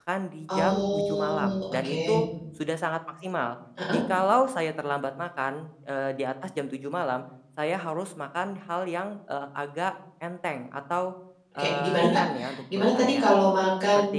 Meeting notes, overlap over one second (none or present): present